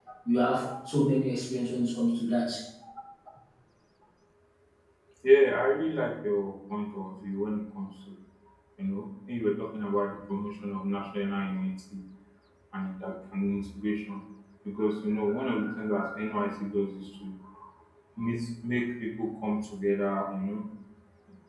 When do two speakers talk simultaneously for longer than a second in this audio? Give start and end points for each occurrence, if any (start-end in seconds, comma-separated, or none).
none